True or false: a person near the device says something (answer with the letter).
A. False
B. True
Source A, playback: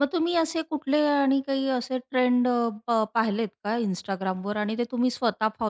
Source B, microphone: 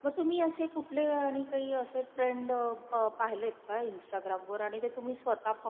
A